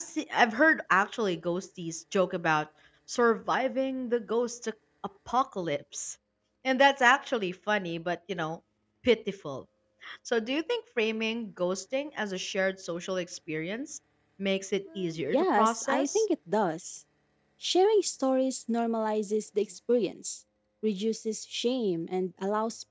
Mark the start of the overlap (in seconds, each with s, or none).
14.9 s